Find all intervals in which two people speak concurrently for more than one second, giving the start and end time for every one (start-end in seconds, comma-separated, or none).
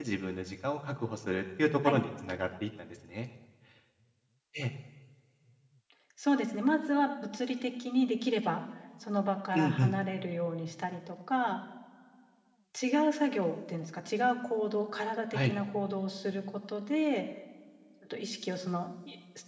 none